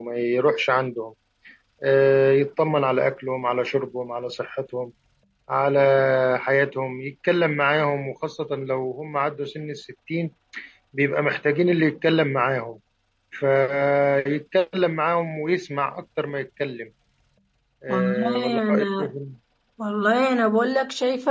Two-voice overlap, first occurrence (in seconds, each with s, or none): 17.9 s